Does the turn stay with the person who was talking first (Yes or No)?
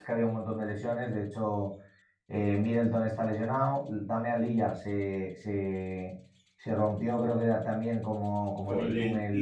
No